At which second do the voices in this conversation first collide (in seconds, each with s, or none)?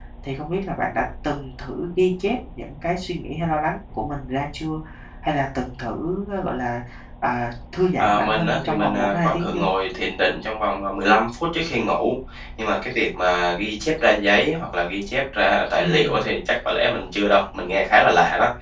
8.0 s